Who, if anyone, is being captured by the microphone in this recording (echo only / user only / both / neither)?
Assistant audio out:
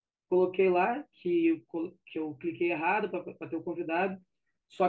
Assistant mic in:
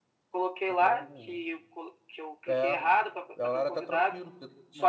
both